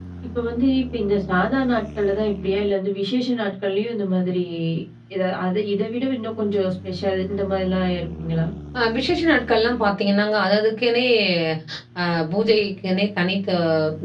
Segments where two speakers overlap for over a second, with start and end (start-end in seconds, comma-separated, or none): none